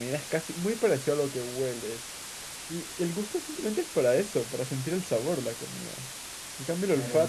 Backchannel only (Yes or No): Yes